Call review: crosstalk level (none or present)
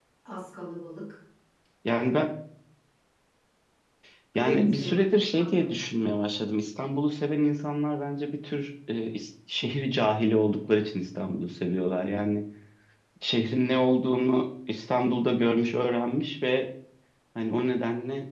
present